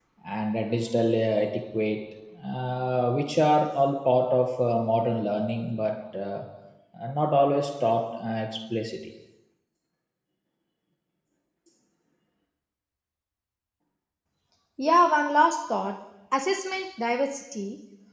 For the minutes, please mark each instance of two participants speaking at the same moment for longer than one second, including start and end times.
none

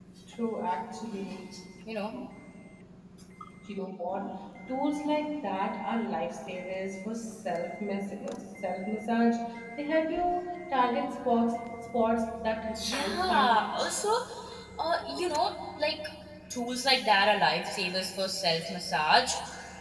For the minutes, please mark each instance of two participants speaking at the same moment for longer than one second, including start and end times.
12.7-13.9

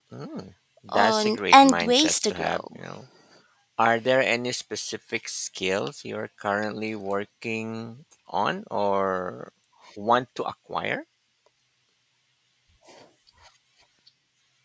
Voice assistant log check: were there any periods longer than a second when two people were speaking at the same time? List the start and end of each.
0.9-2.8

